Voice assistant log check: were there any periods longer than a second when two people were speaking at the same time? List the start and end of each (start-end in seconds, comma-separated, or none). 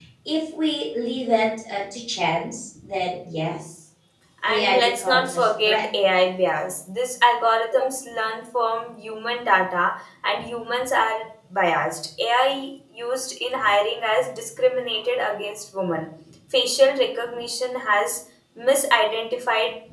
4.5-5.8